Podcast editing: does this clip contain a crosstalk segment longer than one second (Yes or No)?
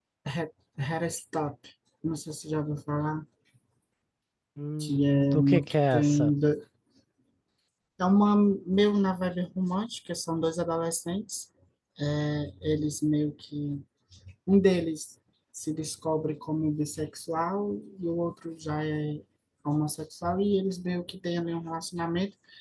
Yes